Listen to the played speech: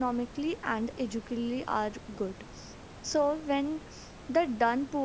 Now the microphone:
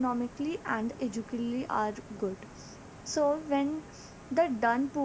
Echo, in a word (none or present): present